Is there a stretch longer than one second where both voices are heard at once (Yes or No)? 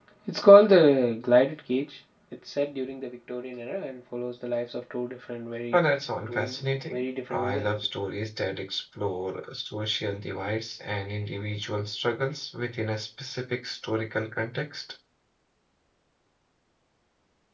Yes